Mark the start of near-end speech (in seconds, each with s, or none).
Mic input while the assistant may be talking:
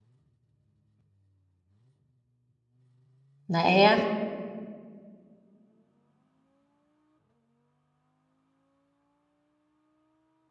3.5 s